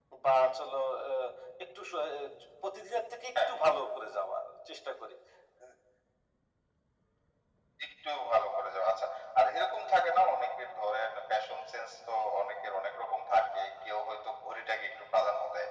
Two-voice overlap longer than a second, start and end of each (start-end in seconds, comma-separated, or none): none